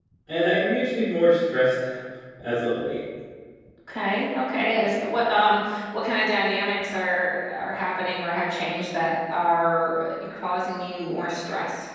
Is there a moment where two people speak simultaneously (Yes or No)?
No